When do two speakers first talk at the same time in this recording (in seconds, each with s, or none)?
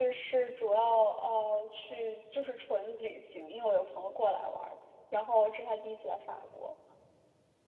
none